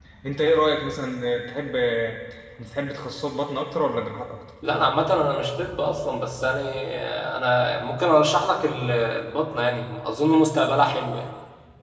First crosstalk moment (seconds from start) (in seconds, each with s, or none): none